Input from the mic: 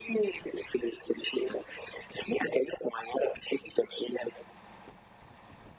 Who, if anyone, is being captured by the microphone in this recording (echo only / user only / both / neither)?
echo only